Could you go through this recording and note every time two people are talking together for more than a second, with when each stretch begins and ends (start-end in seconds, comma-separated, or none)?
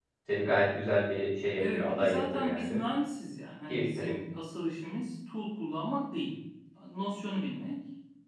1.6-2.8